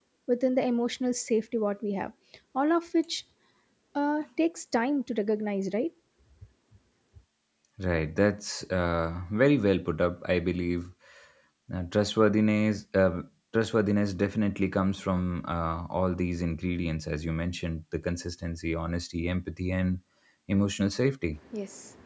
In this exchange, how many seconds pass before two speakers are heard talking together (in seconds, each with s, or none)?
none